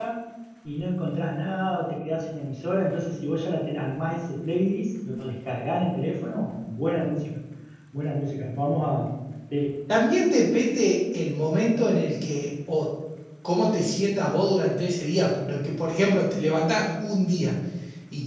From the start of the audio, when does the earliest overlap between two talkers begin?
none

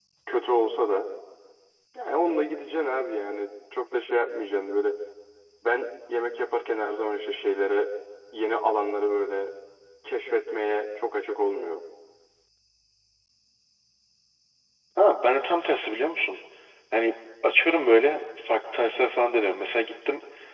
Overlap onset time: none

